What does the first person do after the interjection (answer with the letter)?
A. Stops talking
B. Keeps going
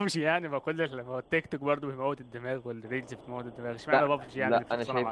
A